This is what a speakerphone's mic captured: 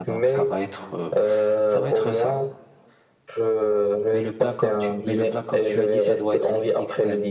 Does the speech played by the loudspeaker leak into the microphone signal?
Yes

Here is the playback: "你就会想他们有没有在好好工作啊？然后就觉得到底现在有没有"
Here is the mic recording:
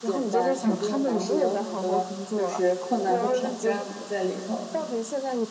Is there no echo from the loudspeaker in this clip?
No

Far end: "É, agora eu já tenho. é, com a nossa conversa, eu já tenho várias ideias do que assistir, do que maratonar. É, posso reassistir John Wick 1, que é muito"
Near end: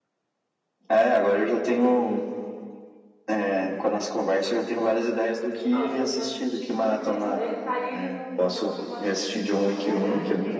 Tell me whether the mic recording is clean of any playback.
No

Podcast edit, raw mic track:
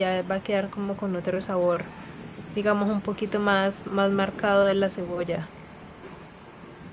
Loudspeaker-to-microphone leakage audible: No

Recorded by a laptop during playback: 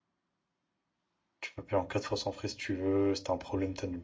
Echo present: No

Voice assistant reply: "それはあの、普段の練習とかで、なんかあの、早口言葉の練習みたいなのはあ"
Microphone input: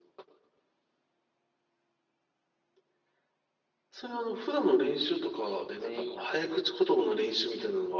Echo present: Yes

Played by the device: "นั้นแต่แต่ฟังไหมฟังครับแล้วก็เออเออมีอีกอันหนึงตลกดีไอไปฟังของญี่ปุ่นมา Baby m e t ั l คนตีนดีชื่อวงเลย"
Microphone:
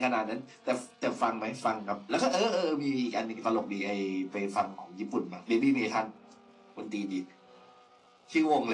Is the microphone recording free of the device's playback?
No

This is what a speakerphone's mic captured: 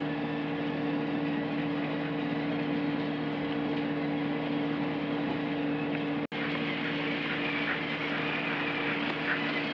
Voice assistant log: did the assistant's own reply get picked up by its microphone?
No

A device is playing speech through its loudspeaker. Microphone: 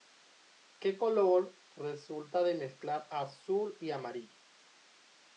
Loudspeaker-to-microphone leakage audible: No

